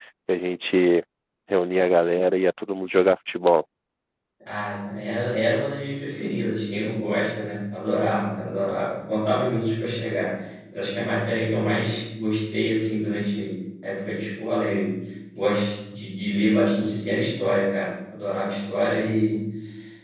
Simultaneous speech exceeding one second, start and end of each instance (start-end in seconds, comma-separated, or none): none